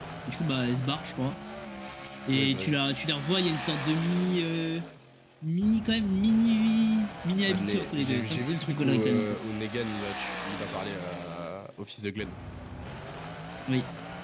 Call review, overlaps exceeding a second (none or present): present